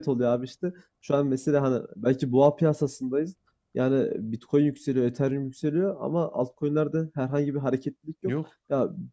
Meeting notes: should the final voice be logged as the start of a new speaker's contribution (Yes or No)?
No